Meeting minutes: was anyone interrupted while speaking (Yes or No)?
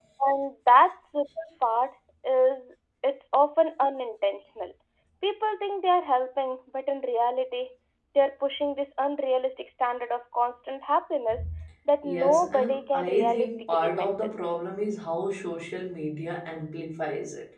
Yes